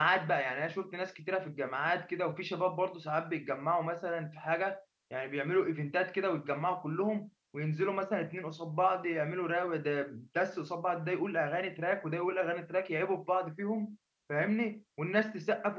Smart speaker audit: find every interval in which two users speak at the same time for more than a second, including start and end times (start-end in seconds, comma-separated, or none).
none